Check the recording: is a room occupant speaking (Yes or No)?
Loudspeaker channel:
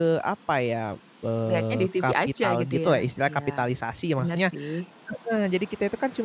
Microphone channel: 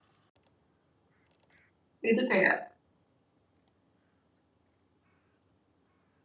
Yes